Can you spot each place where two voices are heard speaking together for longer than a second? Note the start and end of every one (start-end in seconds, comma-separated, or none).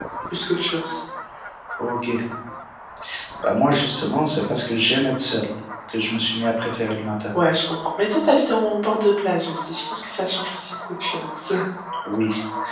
none